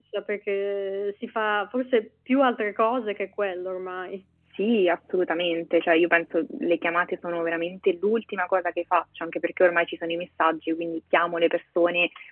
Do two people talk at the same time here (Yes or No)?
No